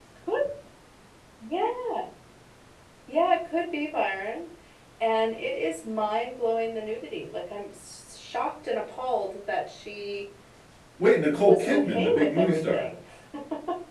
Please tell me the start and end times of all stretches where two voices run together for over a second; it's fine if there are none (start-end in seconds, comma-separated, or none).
11.4-12.8